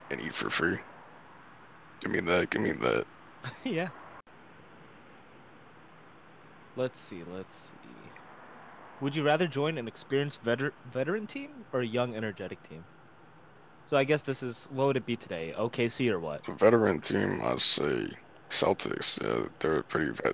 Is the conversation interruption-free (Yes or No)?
Yes